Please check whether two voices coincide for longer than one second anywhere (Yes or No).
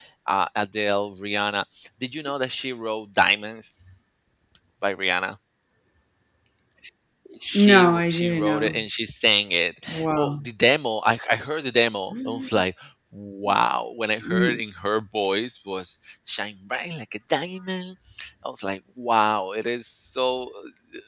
Yes